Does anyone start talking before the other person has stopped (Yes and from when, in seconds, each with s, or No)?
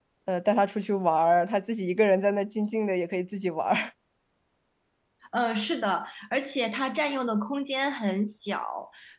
No